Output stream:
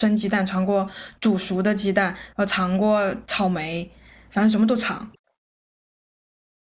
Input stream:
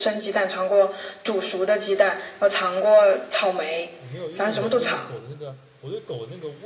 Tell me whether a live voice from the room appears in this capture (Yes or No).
Yes